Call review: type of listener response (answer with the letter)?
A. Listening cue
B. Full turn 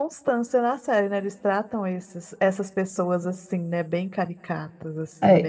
B